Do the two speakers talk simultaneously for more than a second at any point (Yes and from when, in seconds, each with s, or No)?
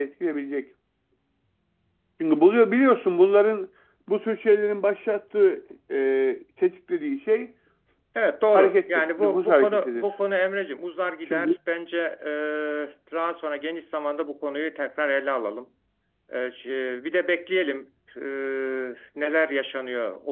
Yes, from 8.5 s